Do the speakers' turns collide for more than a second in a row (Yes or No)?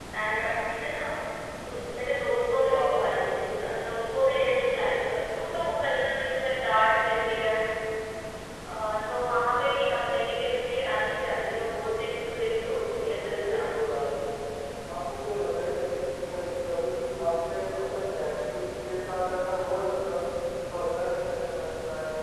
Yes